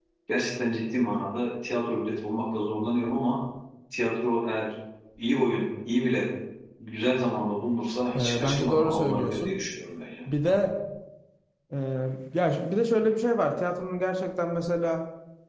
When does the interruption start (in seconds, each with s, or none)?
8.2 s